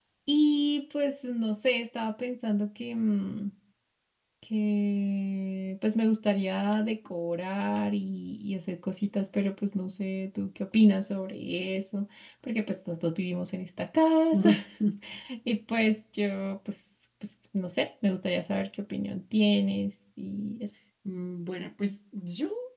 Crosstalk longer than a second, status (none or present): none